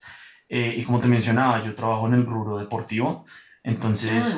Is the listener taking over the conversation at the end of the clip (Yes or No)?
No